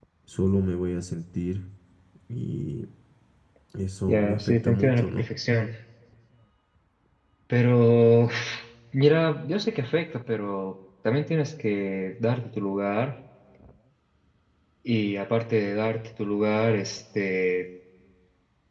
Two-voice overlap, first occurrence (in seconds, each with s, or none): 4.1 s